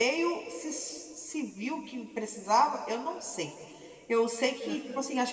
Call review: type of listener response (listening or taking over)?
listening